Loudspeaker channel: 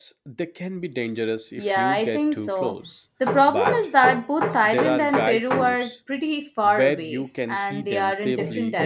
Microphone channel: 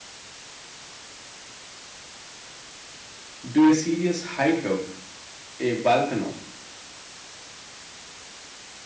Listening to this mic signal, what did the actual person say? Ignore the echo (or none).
do a serious hike up a volcano.